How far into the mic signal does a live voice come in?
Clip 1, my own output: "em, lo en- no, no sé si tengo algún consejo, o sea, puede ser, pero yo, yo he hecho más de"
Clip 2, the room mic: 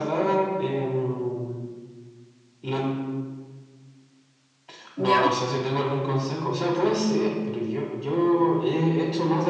5 s

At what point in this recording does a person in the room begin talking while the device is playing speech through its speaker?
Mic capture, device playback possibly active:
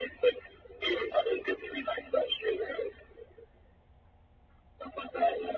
none

